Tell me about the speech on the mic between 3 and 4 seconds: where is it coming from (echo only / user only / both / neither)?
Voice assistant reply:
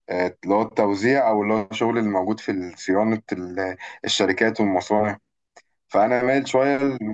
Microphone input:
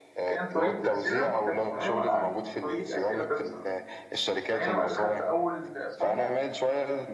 both